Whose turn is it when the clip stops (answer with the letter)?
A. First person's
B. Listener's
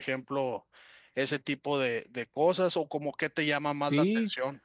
B